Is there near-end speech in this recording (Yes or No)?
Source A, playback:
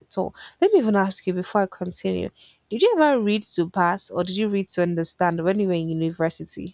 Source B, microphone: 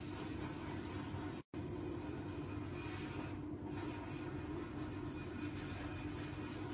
No